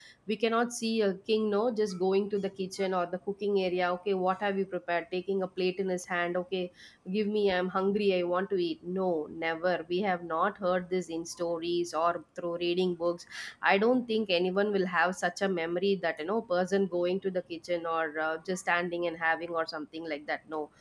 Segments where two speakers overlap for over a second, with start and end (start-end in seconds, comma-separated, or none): none